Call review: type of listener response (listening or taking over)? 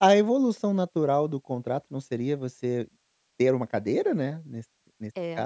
taking over